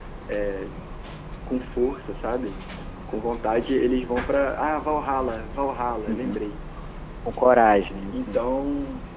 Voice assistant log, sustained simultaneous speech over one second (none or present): none